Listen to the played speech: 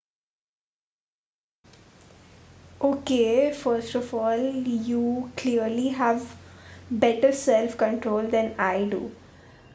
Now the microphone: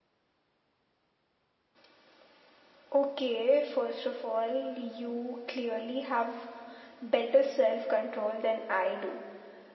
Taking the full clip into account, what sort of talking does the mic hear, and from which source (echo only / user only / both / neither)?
echo only